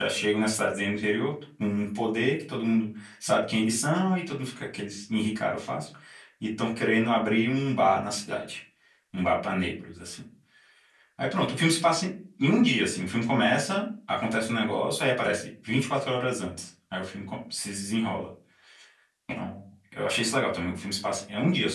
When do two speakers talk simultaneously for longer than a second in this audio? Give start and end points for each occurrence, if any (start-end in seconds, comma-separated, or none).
none